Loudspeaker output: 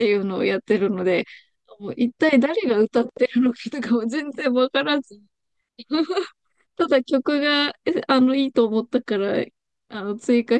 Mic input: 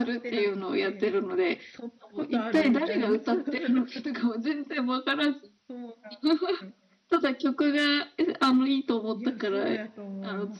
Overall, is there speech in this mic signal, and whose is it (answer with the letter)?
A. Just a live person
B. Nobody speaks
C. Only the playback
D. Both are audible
D